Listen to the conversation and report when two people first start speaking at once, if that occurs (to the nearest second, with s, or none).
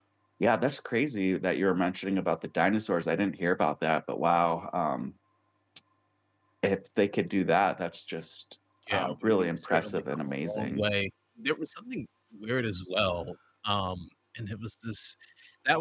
9 s